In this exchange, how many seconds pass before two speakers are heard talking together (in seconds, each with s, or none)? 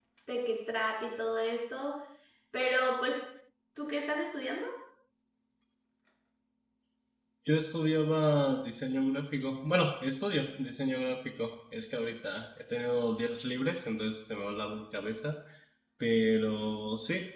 none